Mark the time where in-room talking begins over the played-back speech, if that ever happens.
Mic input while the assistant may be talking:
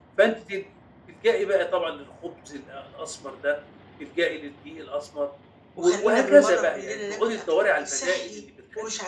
5.8 s

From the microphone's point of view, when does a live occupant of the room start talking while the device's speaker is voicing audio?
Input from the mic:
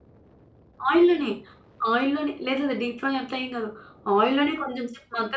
0.9 s

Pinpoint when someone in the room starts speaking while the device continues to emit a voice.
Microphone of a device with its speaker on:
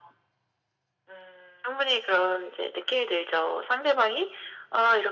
none

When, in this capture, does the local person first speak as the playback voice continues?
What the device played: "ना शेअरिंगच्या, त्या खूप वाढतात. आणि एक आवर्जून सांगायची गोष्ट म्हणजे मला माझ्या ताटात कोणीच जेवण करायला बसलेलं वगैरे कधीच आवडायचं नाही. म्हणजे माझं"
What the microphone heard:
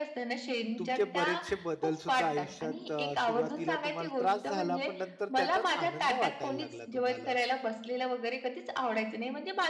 0.8 s

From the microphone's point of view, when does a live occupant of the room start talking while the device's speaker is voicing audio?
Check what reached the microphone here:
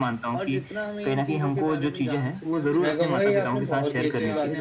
2.8 s

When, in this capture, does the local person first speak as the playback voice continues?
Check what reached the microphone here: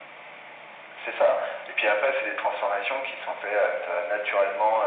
none

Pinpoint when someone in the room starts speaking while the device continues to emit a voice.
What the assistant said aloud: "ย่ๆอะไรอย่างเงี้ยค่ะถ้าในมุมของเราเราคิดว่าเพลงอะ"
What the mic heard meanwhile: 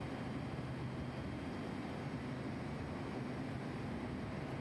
none

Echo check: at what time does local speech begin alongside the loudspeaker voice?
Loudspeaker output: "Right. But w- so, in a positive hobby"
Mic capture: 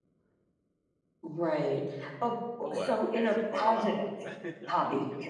2.6 s

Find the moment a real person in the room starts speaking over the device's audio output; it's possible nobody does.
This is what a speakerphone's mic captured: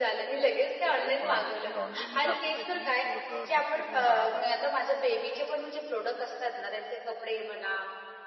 0.9 s

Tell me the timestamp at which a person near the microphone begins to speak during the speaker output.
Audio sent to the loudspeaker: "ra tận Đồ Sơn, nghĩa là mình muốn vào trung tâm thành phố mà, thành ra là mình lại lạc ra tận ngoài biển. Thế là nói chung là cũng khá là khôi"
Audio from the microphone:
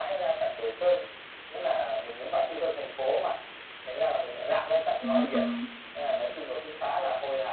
5.0 s

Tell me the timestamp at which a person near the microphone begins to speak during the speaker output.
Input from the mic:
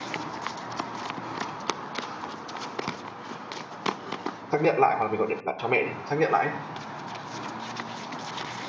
4.5 s

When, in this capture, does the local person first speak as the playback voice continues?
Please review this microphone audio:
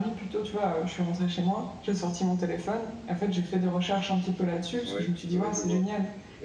4.8 s

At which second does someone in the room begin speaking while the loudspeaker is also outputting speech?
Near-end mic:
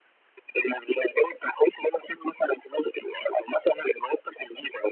none

